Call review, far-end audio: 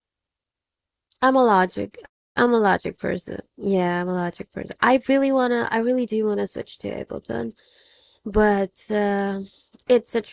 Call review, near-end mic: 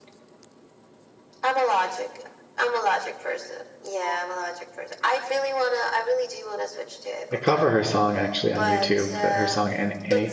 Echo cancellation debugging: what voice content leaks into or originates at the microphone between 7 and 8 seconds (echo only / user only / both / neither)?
both